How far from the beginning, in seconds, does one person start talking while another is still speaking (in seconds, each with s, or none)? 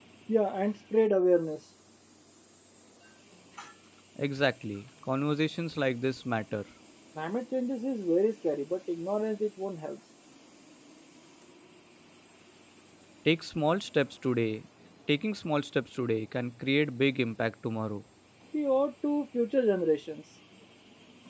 none